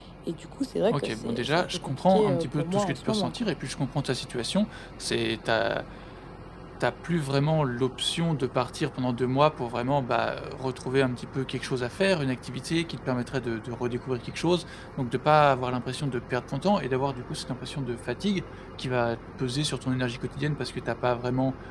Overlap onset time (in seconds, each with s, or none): 0.9 s